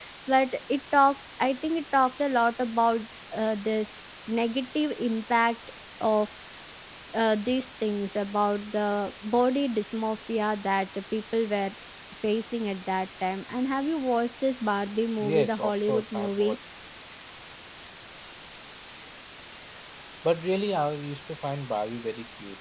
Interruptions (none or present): present